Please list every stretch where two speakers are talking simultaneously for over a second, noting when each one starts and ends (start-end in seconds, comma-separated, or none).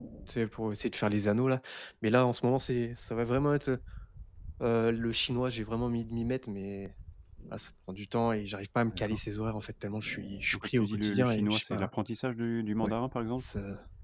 10.5-11.9